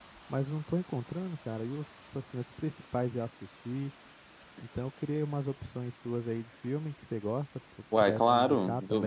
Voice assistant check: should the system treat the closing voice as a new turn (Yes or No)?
Yes